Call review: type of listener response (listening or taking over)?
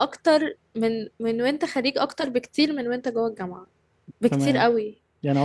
taking over